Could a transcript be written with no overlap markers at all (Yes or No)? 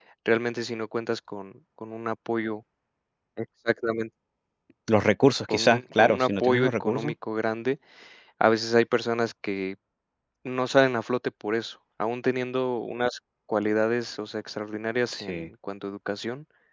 No